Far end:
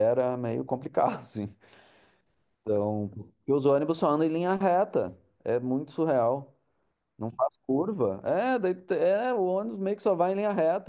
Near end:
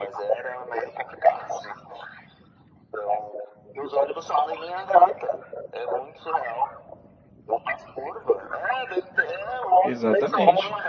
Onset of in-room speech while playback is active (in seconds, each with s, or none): 9.8 s